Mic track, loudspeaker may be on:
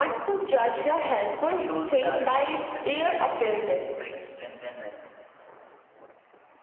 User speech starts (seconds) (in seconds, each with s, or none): 1.4 s